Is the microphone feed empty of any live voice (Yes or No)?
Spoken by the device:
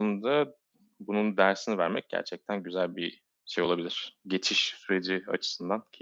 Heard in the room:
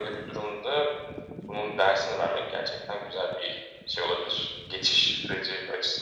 Yes